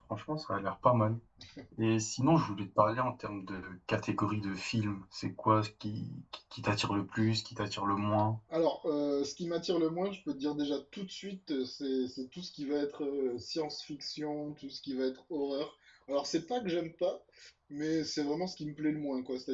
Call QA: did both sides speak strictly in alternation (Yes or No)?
Yes